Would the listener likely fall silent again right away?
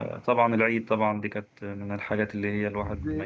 No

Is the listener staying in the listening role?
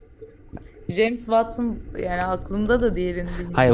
No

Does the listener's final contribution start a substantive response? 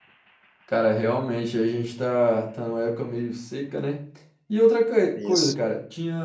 No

